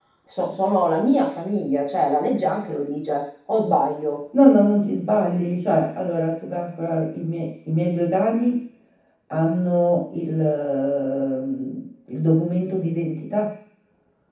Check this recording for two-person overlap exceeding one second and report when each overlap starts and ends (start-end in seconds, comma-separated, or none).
none